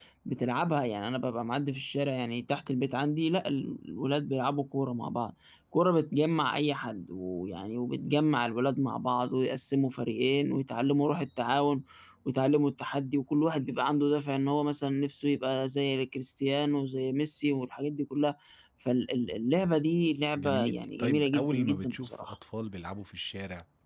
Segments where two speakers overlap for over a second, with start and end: 20.4-22.3

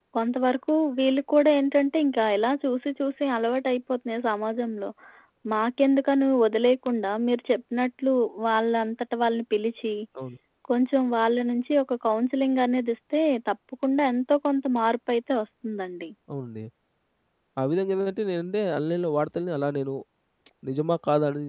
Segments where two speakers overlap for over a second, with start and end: none

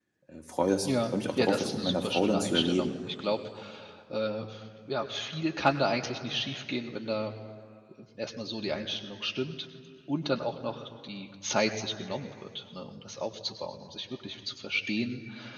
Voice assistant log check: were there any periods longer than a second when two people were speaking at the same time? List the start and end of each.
0.8-2.9

